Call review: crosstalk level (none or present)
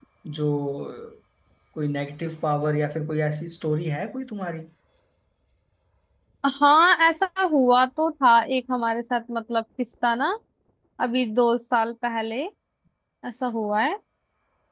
none